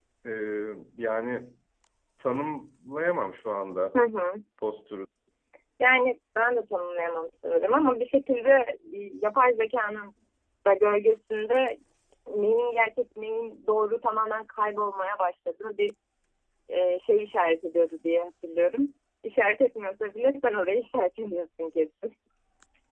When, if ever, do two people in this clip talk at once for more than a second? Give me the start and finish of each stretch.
none

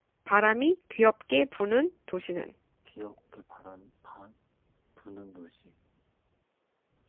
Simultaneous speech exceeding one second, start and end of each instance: none

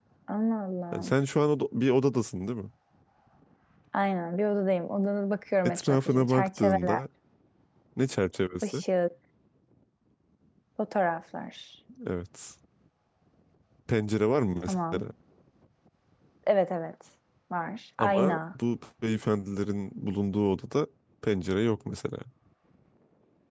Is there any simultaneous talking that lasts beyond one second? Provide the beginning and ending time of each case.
5.6-7.0

